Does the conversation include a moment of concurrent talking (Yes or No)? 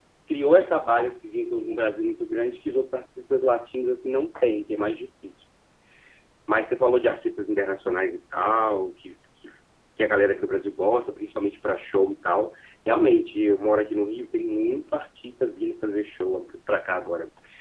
No